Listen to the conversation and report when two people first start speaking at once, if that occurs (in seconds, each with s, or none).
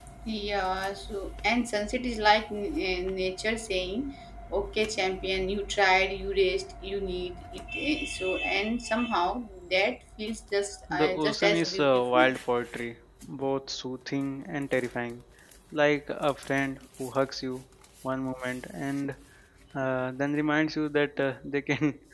10.9 s